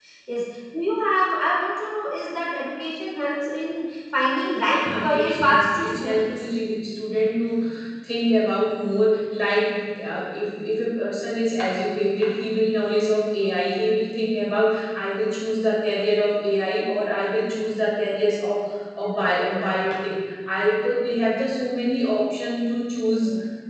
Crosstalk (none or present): present